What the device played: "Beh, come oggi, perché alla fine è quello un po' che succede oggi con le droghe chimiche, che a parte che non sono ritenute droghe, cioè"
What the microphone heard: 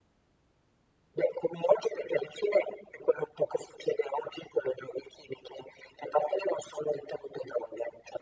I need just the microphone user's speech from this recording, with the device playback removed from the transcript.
none

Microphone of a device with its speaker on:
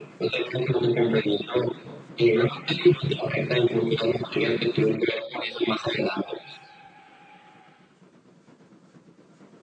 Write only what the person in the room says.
none

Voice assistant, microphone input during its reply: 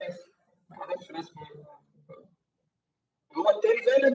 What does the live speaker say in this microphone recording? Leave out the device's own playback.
none

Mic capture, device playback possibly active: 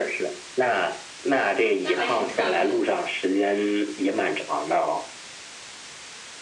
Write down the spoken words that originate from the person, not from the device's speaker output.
那还挺特别的。

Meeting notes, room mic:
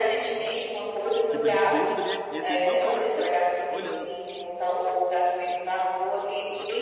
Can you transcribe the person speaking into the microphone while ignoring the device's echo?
Tipo, ele dentro da minha, ele dentro do meu quarto, olhando.

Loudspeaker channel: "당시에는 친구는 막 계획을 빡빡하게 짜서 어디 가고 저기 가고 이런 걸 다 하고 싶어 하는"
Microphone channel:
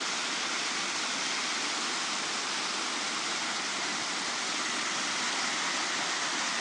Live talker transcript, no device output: none

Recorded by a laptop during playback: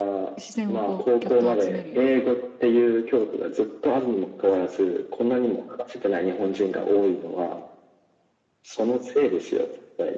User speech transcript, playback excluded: 視線をこう、ぎょっと集めるような。

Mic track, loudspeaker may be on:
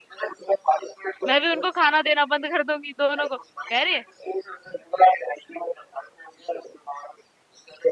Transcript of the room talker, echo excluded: मैं भी उनको खाना देना बंद कर दूंगी दोनों को कह रहे

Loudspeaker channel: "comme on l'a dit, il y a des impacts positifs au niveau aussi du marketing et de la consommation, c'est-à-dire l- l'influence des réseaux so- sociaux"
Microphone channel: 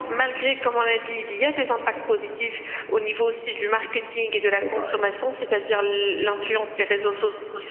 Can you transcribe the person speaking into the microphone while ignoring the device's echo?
c'est toujours pareil.

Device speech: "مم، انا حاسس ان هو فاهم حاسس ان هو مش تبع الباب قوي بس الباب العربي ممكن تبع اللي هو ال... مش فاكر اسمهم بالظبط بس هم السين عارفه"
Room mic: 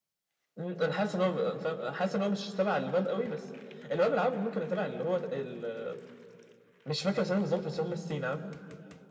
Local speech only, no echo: none

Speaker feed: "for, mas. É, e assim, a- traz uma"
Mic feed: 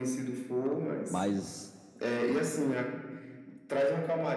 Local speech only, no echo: Mas

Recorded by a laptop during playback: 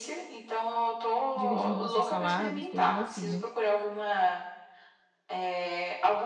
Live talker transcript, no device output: dividindo nossas saladas, coisas assim, né?

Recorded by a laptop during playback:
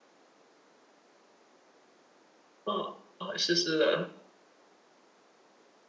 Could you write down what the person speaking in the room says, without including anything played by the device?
哦，哦，是是的，

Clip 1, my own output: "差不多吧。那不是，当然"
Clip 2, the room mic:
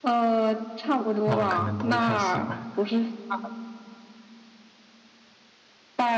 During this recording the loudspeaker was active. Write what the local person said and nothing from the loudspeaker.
那我可能不会太喜欢，

